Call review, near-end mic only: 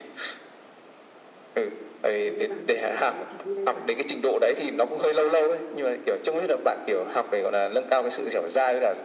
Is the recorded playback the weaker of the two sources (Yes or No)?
No